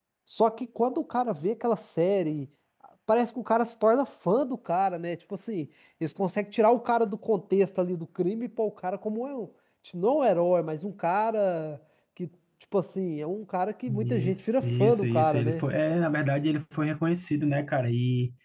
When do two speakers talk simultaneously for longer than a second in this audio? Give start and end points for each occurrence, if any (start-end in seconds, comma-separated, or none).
13.9-15.6